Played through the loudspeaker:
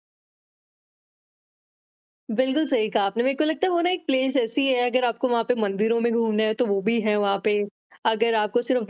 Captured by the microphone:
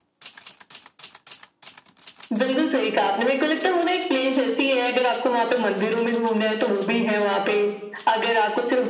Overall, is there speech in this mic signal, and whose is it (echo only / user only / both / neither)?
echo only